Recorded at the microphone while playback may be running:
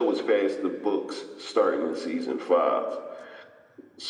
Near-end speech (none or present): none